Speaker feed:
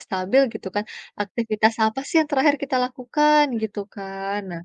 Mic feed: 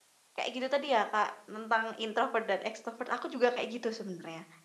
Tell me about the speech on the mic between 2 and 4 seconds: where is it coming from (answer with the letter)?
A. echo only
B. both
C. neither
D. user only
D